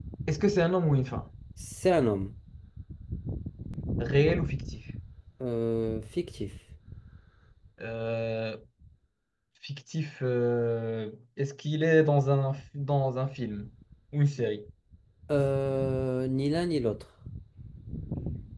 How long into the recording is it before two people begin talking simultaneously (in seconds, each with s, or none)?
none